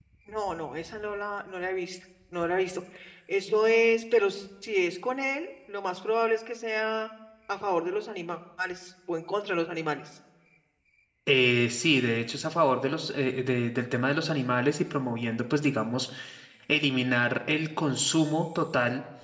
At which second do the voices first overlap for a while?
none

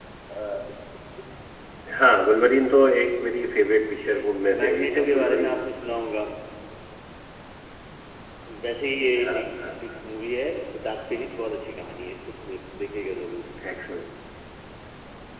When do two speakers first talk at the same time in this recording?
3.9 s

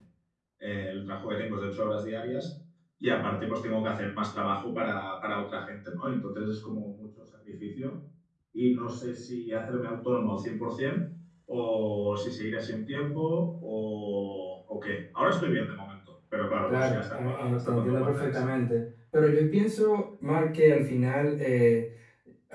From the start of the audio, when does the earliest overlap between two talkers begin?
16.7 s

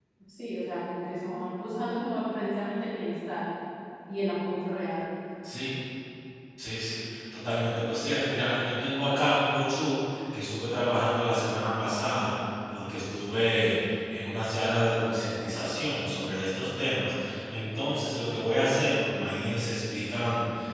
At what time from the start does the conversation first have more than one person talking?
none

